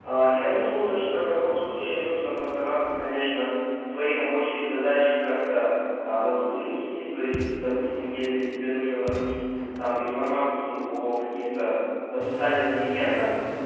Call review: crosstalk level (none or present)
present